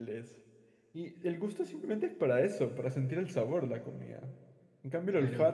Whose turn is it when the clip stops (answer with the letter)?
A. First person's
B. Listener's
A